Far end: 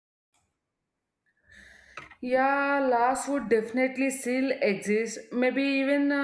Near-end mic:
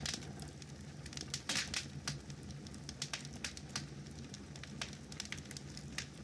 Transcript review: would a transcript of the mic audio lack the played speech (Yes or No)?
Yes